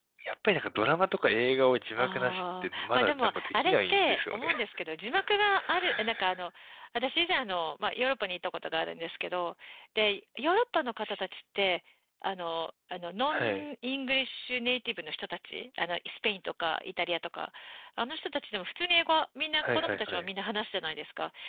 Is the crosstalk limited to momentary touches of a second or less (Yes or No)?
No